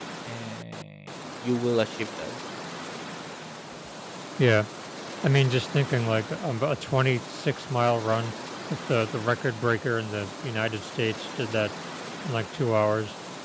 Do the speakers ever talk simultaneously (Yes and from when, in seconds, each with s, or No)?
No